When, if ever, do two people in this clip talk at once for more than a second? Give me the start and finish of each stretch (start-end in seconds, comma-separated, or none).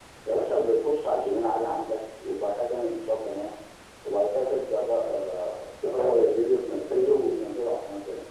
5.8-7.4